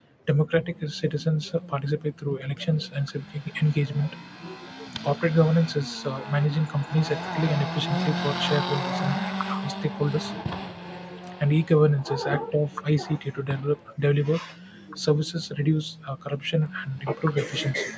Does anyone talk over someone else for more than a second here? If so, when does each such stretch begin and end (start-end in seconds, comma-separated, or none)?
none